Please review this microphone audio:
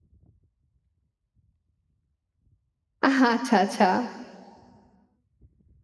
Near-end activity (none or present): present